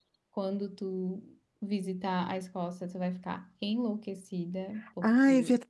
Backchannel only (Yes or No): No